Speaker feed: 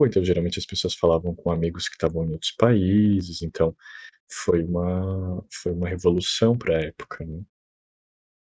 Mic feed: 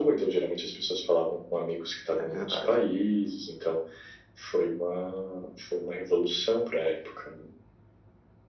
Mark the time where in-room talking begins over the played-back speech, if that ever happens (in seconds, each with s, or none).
2.2 s